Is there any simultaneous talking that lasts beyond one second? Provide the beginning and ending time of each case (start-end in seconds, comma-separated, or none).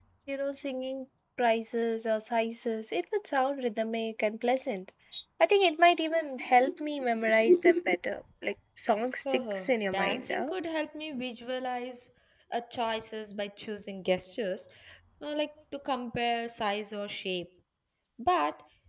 9.2-10.5